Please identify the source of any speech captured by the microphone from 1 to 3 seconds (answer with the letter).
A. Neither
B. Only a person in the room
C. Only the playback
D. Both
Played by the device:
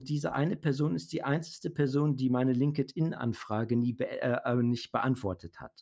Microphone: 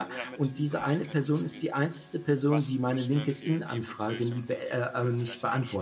D